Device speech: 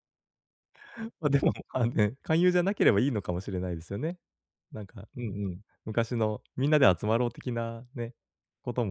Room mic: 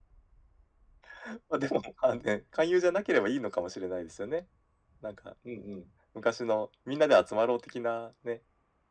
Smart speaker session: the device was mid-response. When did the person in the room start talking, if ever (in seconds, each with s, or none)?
none